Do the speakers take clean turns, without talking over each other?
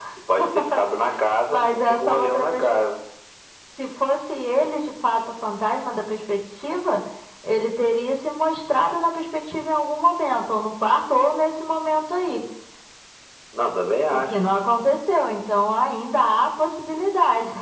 No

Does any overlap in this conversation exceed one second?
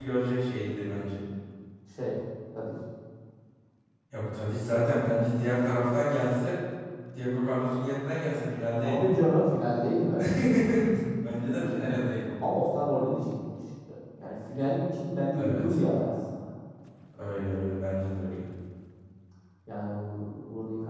No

